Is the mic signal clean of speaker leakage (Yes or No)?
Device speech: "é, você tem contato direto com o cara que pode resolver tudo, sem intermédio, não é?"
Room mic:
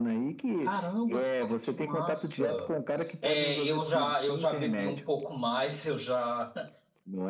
No